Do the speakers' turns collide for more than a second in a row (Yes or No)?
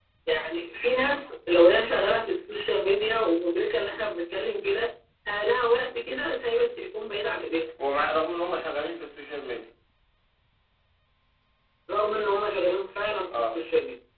No